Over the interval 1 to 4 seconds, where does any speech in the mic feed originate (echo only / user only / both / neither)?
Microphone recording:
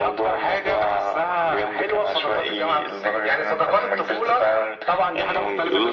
echo only